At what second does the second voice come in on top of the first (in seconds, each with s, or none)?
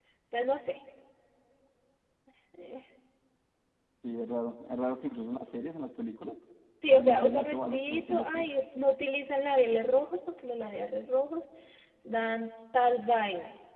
6.9 s